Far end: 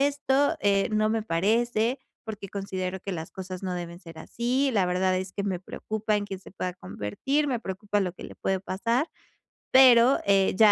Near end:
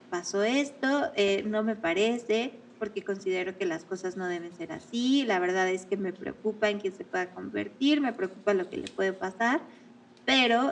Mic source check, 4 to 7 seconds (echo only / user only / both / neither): echo only